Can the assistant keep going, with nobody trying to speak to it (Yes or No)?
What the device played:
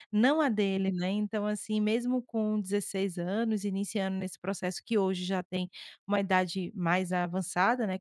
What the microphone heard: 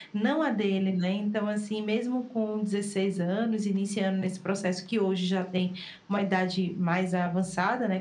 Yes